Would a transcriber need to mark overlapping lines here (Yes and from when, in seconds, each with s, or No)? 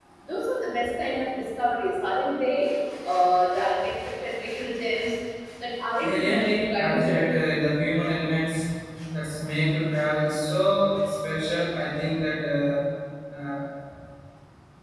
Yes, from 6.0 s